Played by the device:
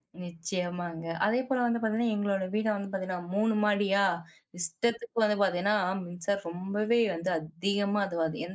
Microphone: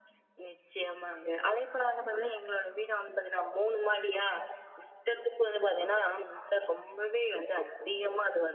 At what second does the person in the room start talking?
none

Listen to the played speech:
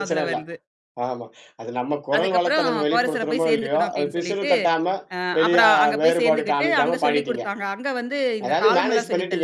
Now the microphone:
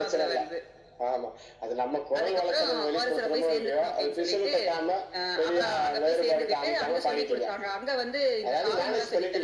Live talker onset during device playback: none

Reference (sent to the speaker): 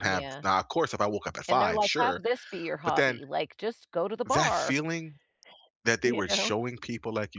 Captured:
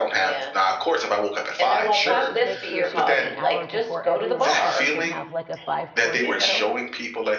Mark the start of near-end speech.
2.0 s

